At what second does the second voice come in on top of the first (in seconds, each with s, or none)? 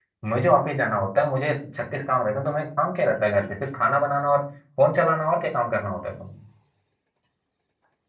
none